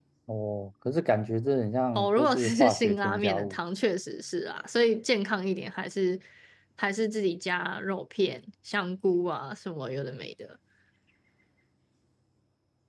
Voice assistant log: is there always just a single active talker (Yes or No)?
No